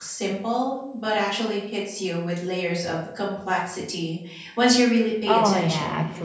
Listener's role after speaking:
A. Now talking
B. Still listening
A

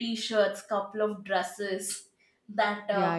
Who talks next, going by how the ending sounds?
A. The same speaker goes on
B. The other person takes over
B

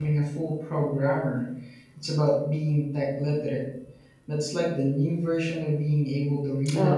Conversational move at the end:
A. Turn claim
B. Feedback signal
A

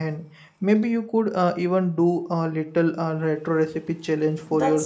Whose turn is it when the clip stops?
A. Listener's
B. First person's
A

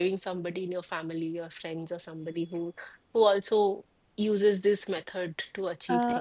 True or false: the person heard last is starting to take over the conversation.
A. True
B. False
A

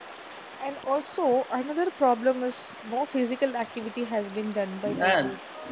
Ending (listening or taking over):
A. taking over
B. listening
A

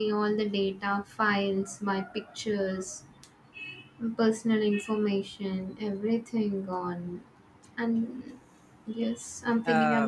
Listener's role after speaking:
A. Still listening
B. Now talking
B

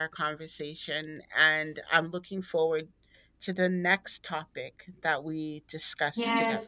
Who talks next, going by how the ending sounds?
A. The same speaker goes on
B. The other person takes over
B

